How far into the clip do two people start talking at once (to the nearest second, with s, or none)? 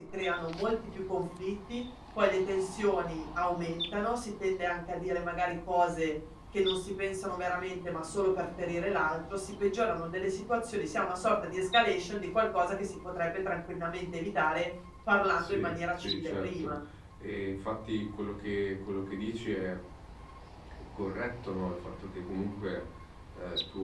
15 s